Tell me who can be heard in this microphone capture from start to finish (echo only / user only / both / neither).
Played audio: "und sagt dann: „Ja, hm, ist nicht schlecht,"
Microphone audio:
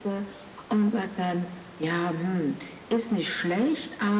echo only